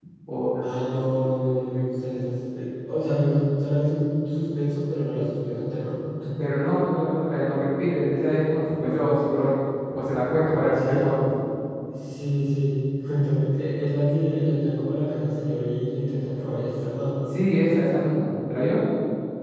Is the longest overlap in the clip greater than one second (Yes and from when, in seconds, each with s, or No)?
No